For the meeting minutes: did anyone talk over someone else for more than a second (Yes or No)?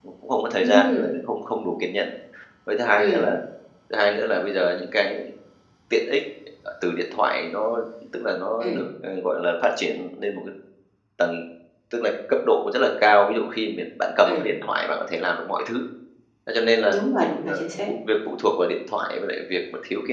No